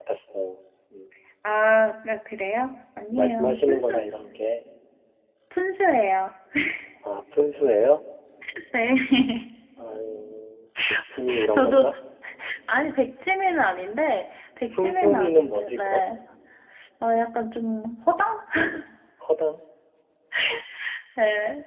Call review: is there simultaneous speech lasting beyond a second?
Yes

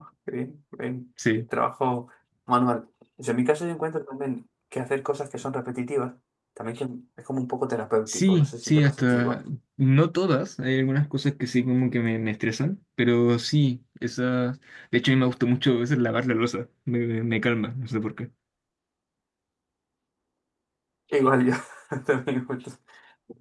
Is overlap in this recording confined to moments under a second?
No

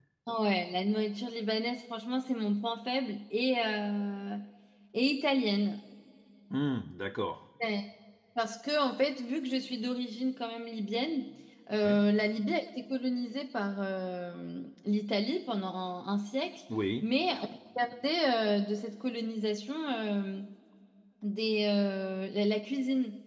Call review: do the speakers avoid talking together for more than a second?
Yes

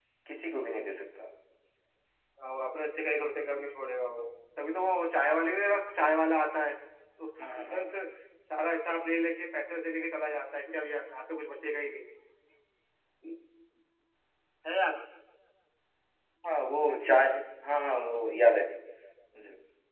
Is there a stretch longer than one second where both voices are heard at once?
No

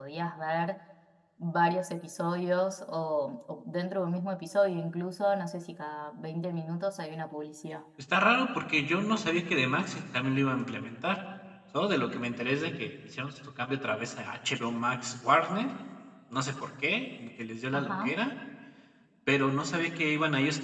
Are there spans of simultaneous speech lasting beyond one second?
No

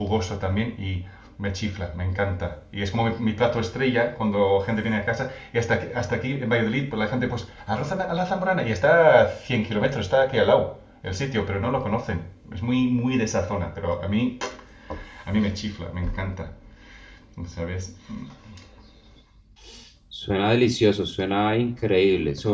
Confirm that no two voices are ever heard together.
Yes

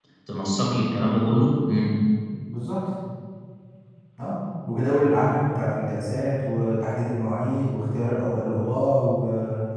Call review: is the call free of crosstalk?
Yes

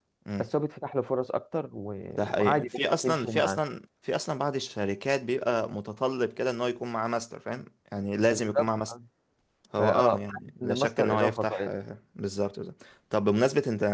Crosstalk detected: Yes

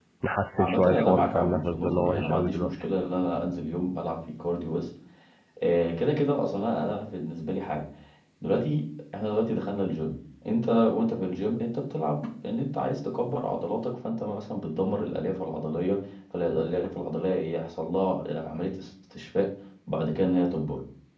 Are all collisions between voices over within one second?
No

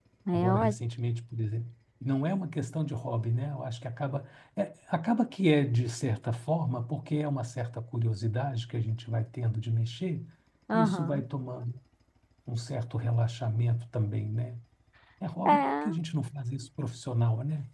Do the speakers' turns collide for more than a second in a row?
No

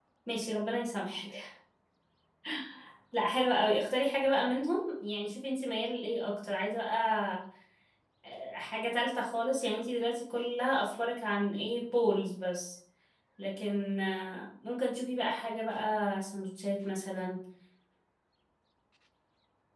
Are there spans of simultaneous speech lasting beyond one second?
No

